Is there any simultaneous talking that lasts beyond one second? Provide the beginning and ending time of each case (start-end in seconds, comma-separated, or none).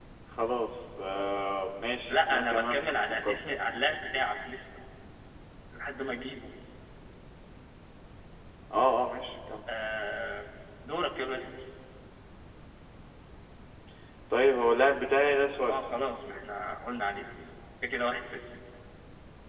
2.1-3.4